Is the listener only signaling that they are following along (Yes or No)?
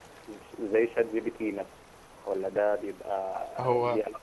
Yes